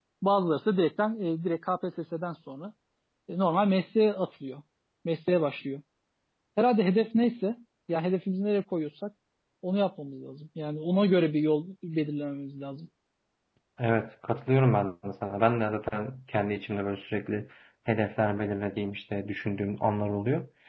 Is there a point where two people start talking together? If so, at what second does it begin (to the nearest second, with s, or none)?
none